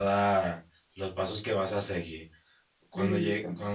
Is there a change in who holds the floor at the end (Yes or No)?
No